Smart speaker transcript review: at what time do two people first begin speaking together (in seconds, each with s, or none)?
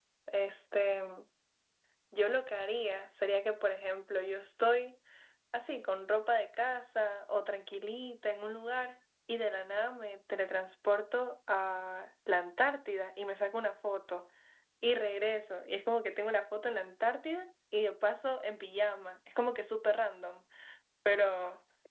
none